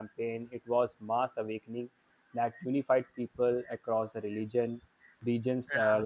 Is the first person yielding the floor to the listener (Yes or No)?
No